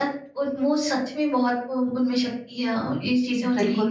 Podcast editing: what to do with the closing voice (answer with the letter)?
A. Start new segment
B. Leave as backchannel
A